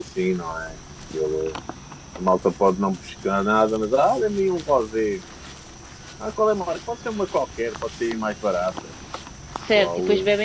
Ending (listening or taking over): taking over